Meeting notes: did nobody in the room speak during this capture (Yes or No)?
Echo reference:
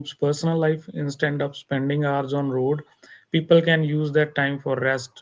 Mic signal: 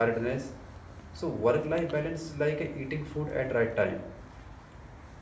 No